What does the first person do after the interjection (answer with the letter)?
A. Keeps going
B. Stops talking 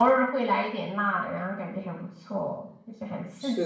B